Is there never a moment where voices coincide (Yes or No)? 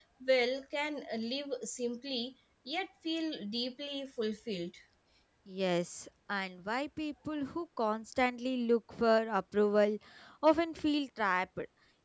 Yes